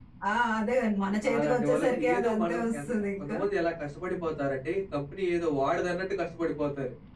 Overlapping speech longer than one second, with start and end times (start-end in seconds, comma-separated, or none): 1.4-3.3